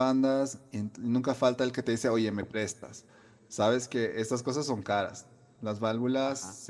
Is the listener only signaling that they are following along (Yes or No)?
Yes